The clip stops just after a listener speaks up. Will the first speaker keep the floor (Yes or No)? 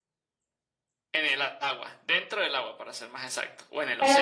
No